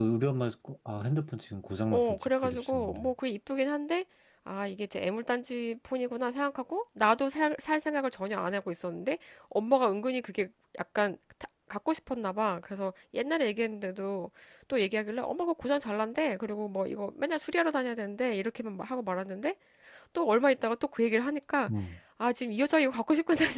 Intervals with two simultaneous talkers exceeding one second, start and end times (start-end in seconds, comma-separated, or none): 1.9-3.1